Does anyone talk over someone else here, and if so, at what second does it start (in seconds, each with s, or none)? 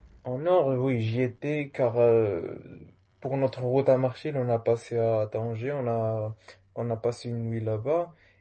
none